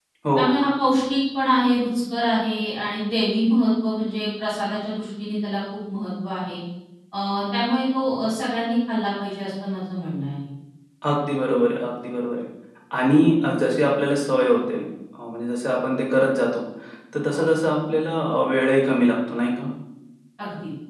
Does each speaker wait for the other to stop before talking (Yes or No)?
Yes